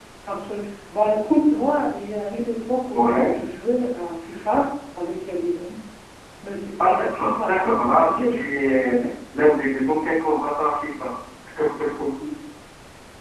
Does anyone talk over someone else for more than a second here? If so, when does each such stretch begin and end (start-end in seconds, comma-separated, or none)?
6.8-8.7